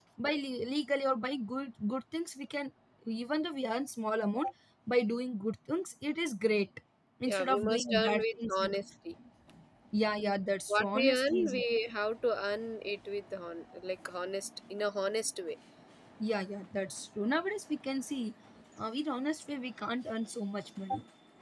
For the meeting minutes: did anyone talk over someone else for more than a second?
Yes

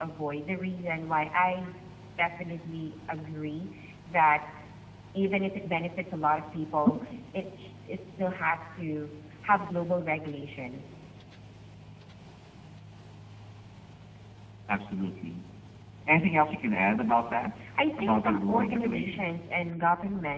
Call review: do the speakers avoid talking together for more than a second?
No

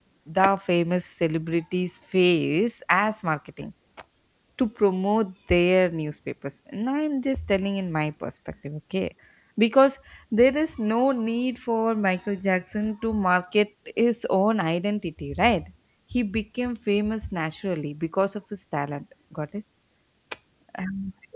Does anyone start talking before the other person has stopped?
No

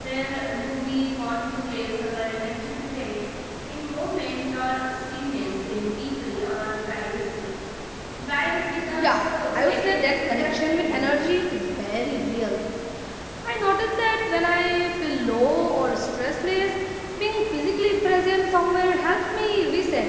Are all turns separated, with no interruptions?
No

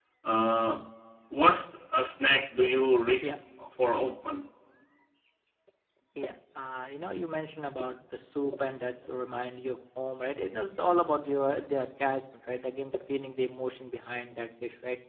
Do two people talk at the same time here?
No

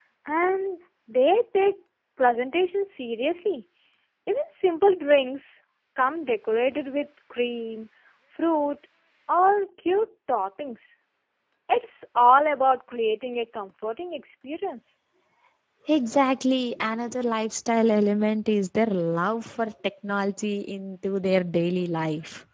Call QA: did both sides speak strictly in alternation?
Yes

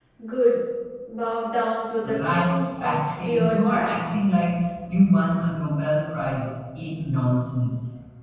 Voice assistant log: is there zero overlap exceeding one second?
No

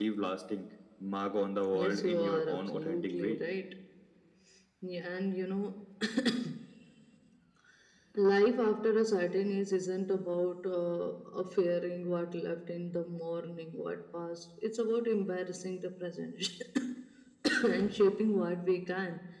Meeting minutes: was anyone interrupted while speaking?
Yes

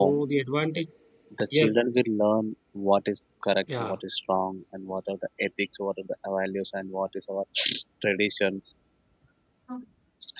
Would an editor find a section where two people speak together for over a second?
No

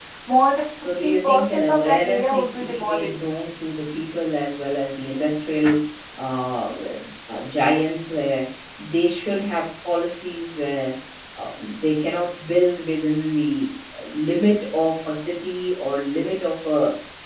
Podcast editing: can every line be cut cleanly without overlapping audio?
No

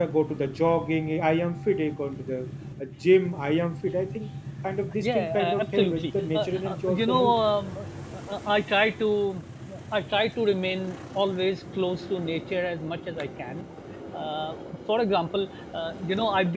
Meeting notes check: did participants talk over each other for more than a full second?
Yes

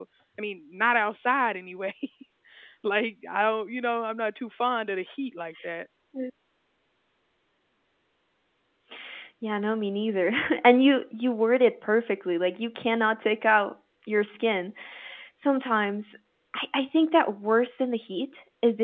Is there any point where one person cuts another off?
No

